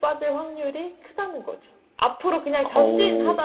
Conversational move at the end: listening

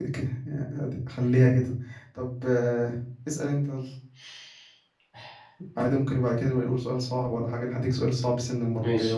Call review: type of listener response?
taking over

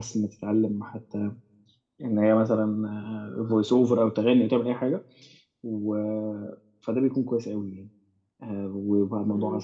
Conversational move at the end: taking over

